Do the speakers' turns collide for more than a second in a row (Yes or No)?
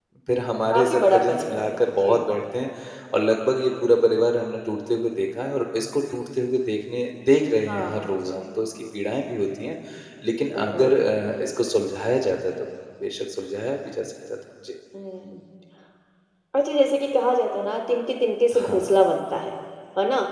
Yes